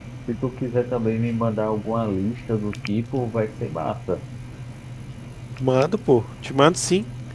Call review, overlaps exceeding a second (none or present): none